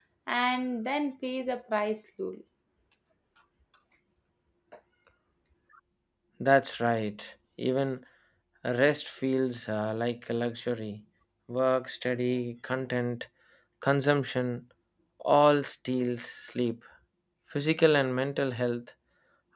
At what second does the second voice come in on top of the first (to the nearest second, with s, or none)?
none